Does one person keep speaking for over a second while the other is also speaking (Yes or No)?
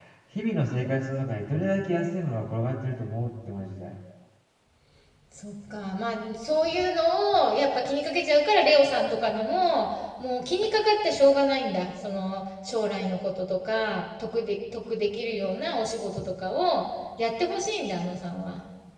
No